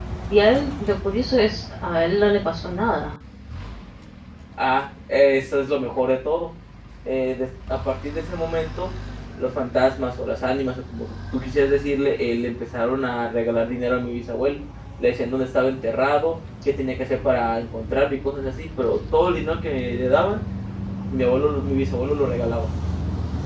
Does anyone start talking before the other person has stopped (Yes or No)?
No